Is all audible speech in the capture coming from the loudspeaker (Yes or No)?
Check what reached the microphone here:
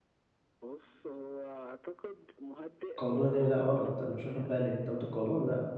No